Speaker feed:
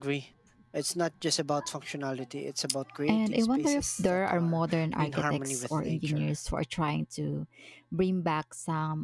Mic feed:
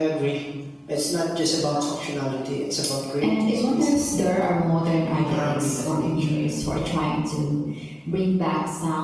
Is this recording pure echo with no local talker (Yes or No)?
Yes